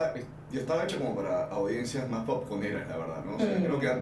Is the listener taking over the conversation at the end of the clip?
No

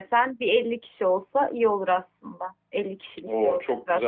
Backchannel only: No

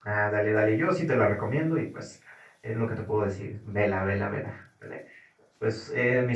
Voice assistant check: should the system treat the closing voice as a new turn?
No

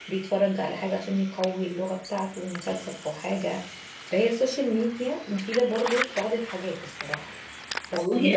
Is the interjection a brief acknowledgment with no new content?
No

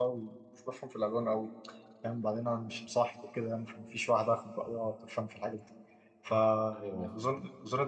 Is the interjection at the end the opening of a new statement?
No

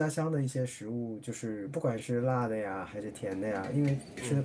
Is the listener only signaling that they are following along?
Yes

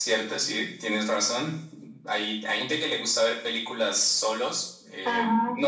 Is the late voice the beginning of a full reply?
No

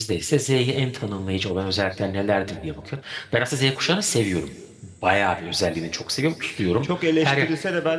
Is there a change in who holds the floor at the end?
Yes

